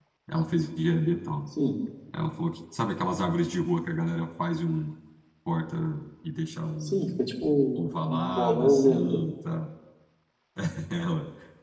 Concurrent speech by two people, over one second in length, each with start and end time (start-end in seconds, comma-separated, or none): 7.8-9.2